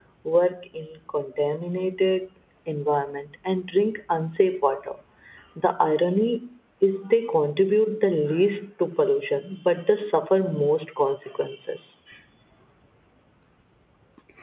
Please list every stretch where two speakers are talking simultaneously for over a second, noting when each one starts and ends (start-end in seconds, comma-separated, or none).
none